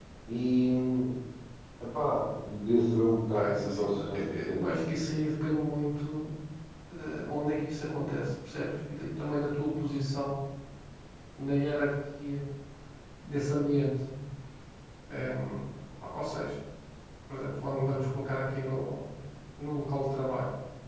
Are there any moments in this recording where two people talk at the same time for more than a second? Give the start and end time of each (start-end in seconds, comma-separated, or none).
3.3-4.7